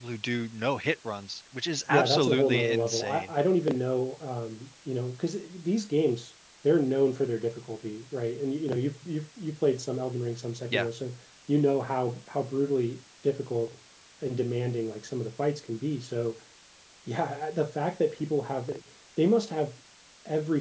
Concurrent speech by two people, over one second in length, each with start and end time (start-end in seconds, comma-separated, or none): 1.9-3.3